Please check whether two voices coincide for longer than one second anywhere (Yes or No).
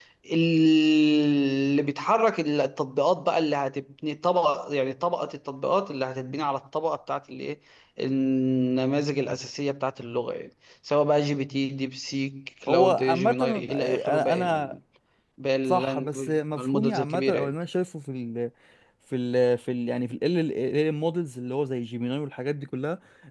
Yes